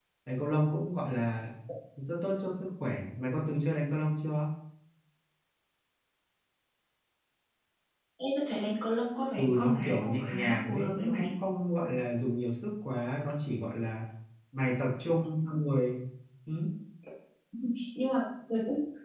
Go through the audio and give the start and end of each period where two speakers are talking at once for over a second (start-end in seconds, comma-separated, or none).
9.4-11.3